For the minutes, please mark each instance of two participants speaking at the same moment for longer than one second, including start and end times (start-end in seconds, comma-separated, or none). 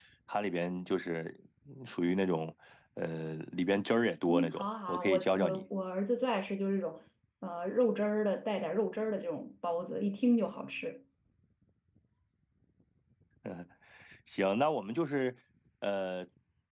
4.3-5.6